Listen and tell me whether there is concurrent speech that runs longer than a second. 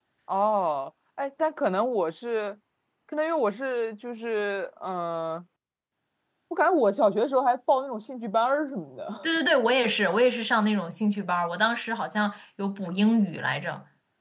No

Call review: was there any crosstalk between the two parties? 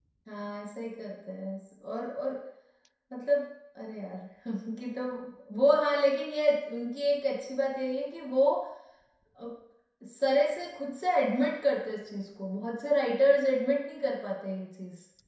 No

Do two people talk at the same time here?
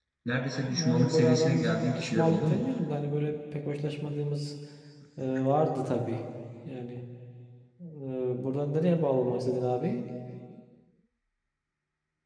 Yes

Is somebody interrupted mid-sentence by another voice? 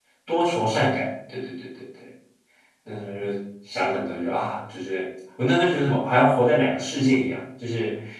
No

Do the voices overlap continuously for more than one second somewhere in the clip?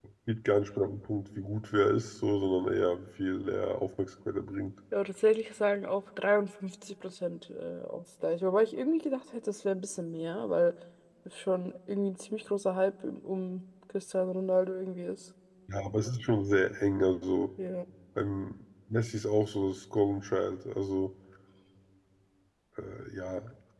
No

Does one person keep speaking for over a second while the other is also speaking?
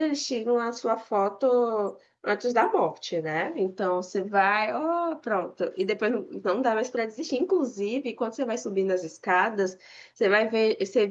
No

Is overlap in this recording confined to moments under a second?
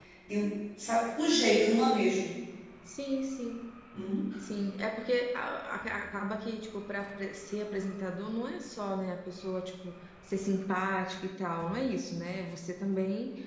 Yes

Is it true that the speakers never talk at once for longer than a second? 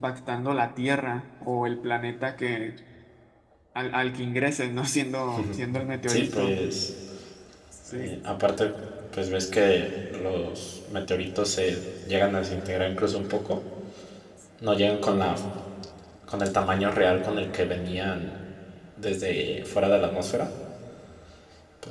Yes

